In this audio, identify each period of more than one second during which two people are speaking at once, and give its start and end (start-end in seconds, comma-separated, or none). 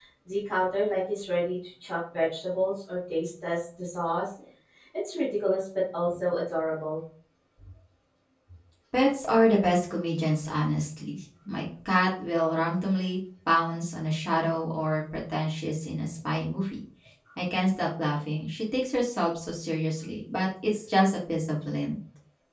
none